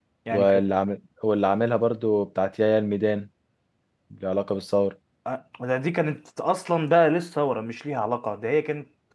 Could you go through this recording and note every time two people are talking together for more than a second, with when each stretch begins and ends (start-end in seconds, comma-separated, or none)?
none